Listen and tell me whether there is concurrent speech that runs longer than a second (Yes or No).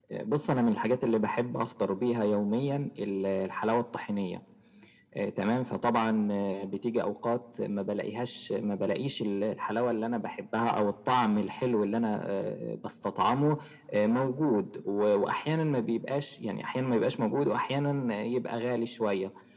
No